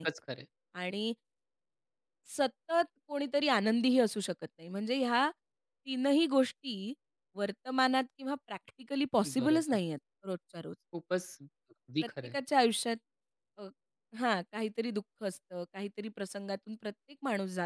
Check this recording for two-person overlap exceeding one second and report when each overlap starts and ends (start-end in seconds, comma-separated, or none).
none